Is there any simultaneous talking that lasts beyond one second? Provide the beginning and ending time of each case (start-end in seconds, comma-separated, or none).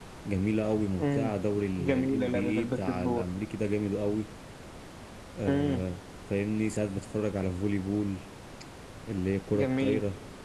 1.8-3.2